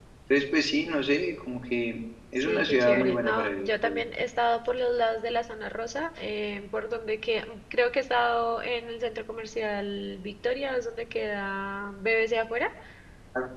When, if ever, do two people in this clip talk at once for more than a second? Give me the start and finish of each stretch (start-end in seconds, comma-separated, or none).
2.4-4.0